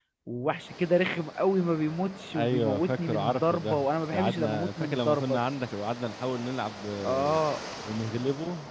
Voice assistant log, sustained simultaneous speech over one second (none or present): present